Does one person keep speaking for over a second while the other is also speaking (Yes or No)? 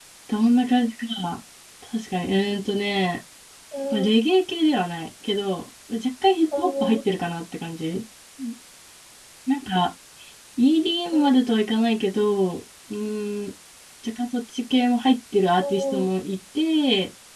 No